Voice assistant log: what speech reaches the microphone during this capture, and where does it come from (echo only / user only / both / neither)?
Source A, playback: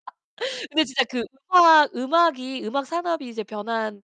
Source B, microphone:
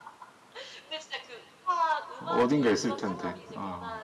both